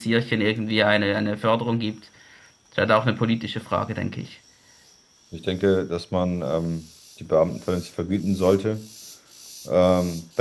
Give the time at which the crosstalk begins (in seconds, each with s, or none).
none